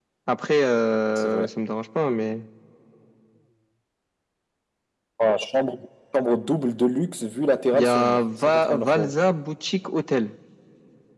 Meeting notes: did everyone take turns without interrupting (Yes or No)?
No